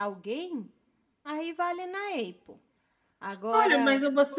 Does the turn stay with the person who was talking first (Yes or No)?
No